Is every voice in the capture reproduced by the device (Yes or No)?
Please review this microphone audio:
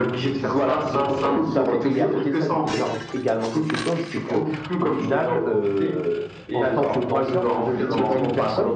No